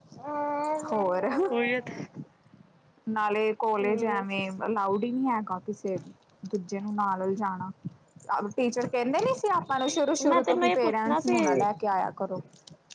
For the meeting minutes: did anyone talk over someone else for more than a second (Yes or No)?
Yes